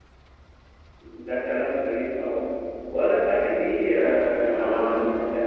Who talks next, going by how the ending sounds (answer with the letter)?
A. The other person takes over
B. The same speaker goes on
B